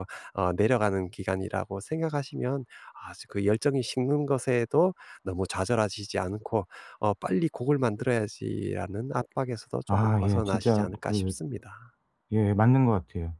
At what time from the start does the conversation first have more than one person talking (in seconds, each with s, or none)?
9.9 s